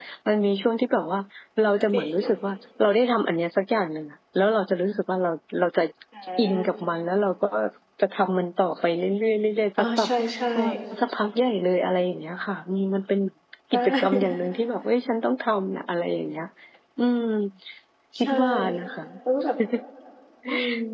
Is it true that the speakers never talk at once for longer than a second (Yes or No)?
Yes